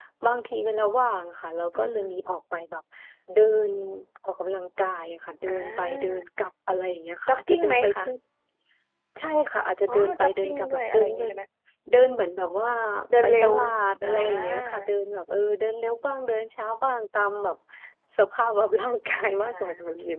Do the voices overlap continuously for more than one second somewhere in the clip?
Yes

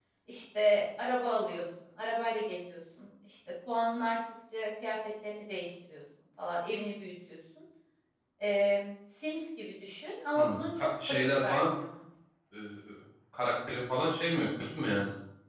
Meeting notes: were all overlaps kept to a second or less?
No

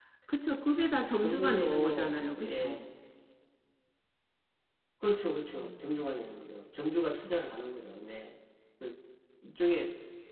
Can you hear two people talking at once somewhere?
Yes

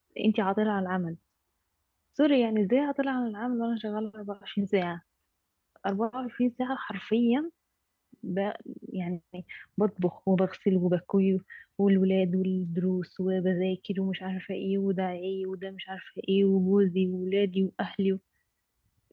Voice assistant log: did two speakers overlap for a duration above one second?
No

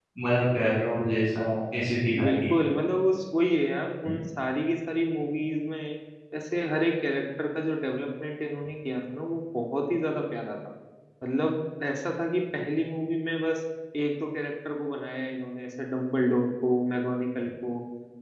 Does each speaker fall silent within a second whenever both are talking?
Yes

